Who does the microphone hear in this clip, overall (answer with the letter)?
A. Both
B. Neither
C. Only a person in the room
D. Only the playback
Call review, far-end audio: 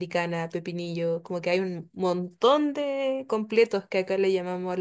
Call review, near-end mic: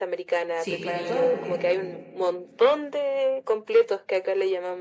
A